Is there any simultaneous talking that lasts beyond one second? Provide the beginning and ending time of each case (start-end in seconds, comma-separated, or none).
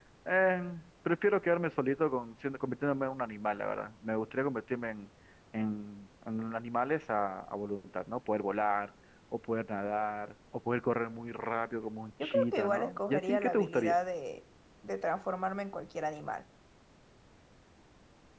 12.2-14.0